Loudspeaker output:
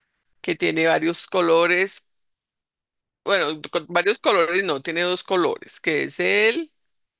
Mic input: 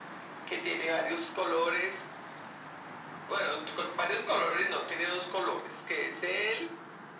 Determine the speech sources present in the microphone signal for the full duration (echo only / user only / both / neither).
echo only